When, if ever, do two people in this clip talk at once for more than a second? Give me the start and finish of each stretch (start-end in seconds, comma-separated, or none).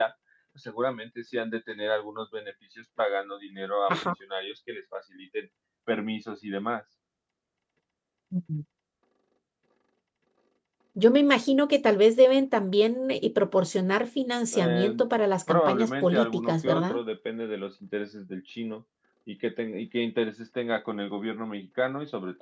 15.5-17.0